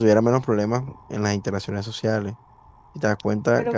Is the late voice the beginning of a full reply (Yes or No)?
Yes